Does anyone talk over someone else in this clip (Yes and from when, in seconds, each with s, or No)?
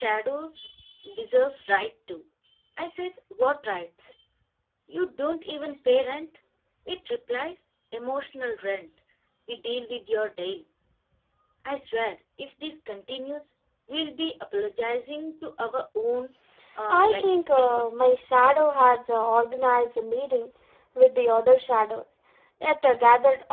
Yes, from 16.9 s